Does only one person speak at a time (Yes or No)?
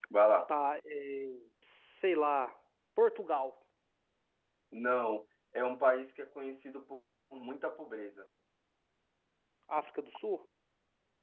Yes